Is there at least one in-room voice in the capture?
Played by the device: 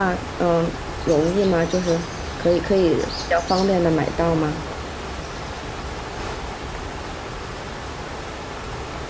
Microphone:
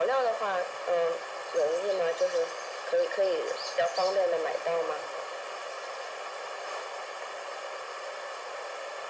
No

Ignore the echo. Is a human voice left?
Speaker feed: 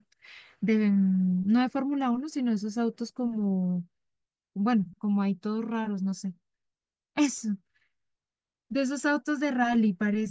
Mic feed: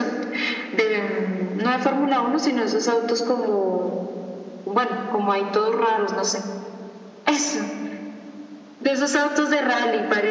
No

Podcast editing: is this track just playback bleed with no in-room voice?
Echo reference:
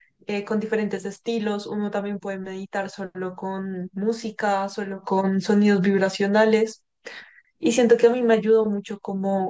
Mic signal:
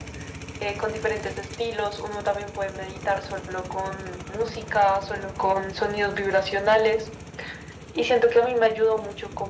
Yes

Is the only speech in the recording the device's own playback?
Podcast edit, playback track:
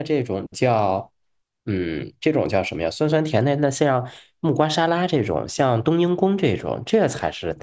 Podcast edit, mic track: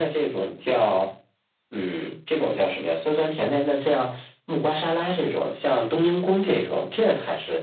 Yes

